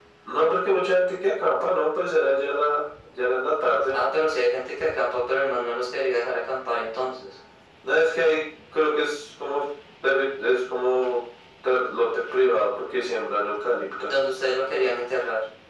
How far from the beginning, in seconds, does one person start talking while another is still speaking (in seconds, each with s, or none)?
none